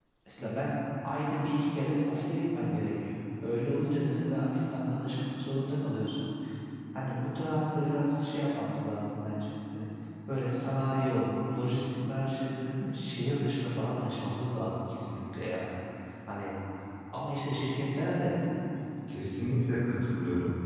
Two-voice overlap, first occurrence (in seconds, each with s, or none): none